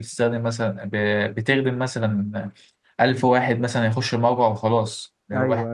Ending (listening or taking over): listening